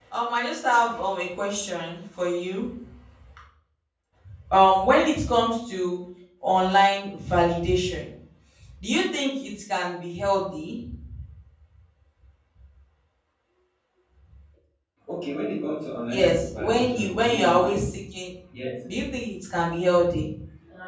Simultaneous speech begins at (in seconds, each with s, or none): 16.1 s